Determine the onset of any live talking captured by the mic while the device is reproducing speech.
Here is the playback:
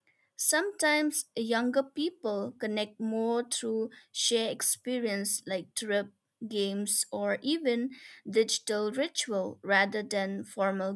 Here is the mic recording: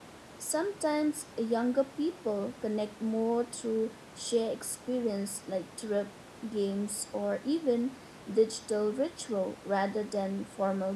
none

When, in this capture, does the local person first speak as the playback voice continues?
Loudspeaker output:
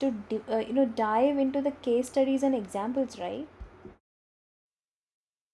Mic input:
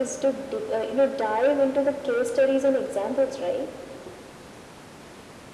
none

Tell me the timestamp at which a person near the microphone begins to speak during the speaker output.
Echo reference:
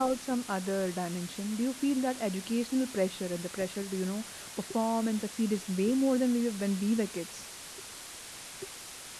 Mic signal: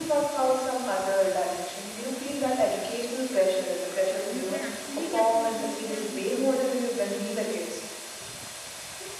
4 s

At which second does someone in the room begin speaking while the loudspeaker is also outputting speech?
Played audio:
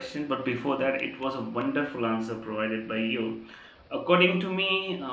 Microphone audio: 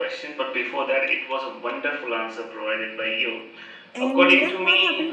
4 s

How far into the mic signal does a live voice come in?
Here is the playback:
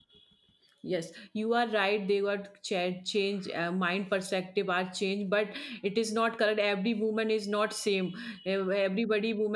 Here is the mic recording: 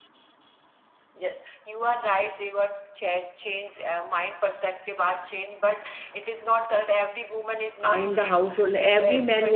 8 s

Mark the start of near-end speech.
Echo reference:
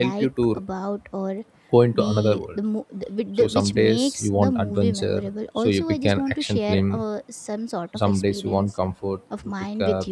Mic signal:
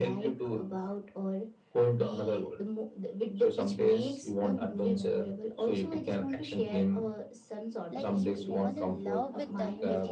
8 s

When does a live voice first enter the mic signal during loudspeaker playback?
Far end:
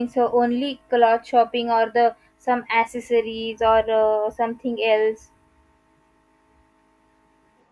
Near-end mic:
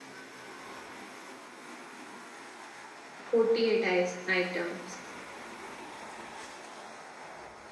3 s

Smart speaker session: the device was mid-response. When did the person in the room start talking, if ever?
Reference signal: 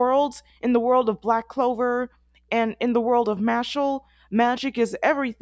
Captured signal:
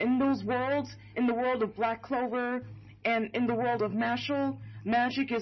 none

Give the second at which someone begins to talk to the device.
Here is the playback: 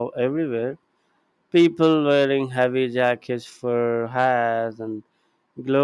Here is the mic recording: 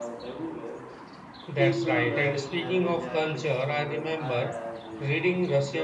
1 s

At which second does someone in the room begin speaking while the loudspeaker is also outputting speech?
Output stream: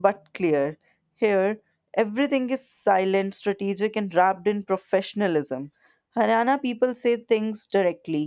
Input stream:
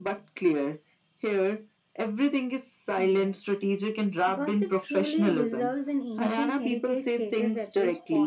3 s

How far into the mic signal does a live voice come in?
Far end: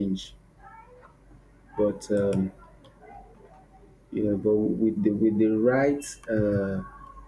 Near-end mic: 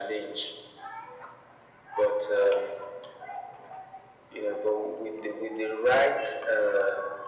none

